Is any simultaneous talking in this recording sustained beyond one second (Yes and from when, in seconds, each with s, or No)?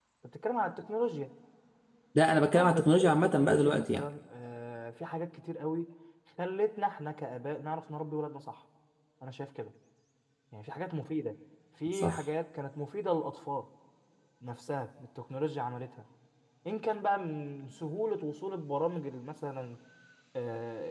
Yes, from 2.6 s